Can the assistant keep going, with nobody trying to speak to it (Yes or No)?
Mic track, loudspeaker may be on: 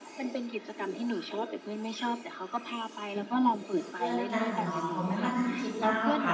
No